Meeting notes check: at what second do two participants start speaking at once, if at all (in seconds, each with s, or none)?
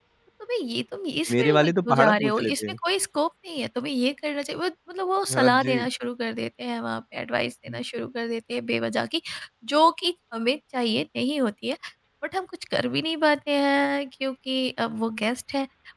1.3 s